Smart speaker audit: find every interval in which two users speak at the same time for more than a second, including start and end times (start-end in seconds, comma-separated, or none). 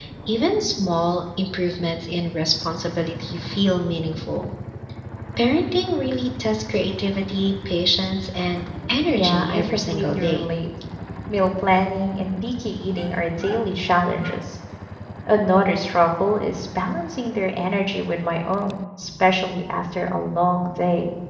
9.1-10.4